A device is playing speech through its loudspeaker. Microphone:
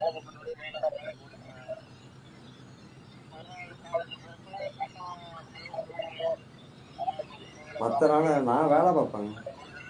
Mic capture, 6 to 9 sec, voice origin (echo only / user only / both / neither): both